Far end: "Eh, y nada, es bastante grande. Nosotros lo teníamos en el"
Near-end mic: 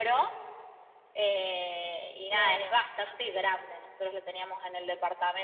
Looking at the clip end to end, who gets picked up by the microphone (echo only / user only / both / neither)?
both